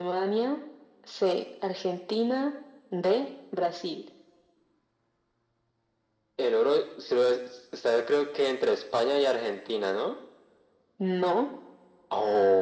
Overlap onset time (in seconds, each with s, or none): none